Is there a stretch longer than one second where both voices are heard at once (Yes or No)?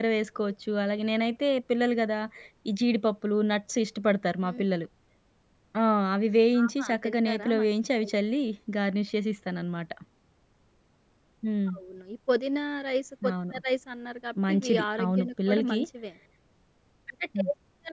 Yes